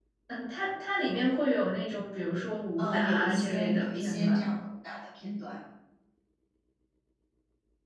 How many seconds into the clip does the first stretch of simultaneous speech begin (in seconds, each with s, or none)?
2.8 s